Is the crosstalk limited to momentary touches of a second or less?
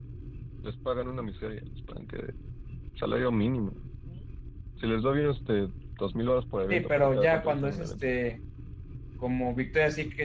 No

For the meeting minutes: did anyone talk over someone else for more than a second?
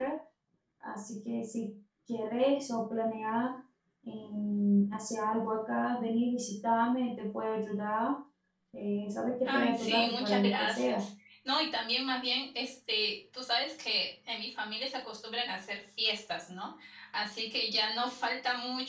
Yes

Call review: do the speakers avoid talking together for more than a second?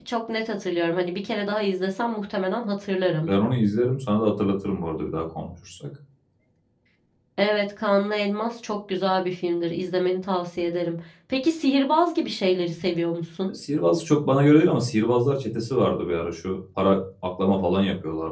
Yes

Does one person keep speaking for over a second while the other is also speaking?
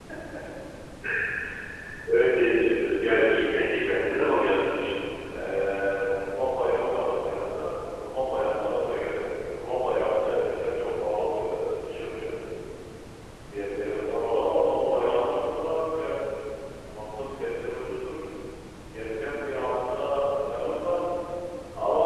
Yes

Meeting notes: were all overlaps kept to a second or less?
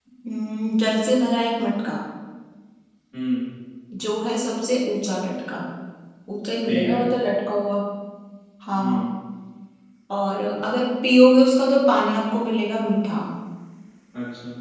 Yes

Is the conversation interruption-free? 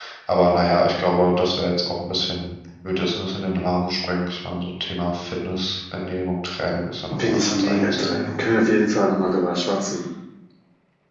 No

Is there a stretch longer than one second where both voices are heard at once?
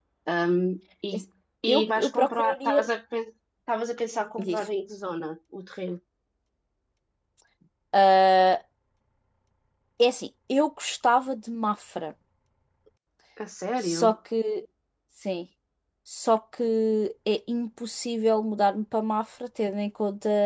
Yes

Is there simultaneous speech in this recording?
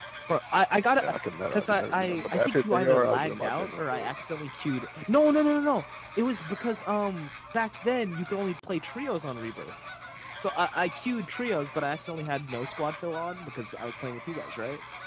Yes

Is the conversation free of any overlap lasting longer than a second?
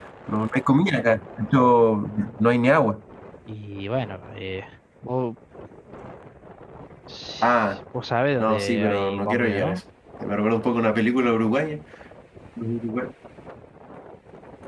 No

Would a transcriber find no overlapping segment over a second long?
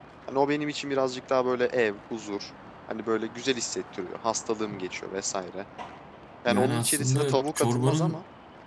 No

